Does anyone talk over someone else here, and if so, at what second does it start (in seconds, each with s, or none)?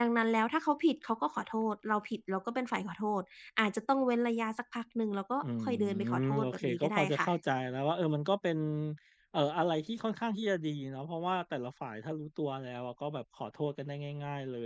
5.4 s